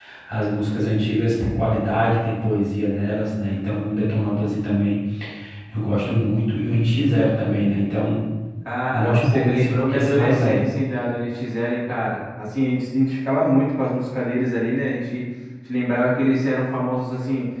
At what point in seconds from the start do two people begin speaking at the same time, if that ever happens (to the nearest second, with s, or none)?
9 s